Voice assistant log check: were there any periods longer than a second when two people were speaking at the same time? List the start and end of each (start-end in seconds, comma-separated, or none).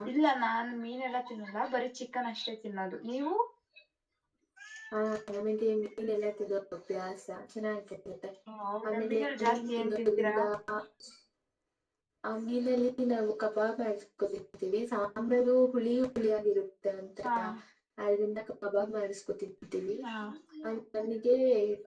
8.9-10.3